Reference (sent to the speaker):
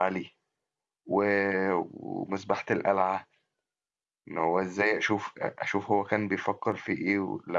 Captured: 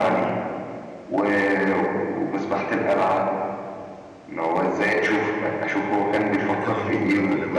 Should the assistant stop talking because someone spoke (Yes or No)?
Yes